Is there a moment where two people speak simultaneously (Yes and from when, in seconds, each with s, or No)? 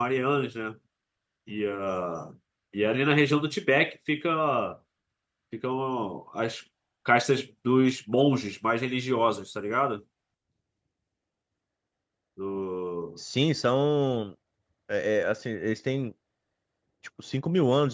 No